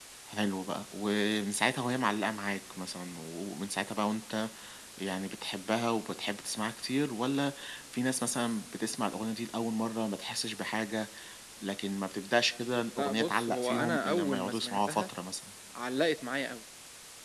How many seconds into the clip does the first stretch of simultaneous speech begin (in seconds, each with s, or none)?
13.0 s